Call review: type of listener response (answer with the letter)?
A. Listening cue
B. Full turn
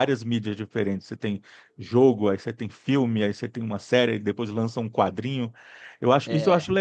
A